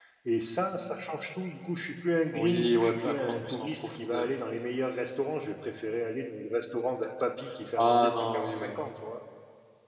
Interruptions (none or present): present